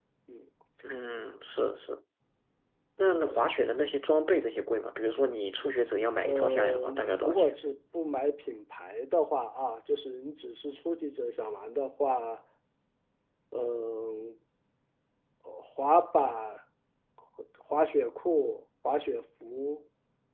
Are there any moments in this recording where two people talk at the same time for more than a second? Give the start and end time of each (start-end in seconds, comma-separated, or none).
6.2-7.5